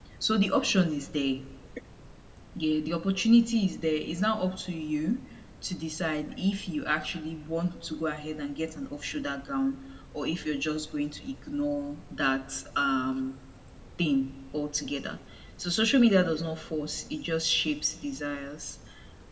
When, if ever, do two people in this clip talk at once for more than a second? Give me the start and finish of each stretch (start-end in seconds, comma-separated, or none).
none